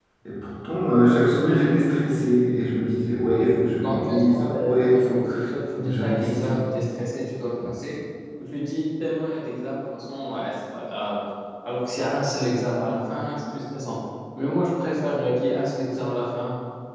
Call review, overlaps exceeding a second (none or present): present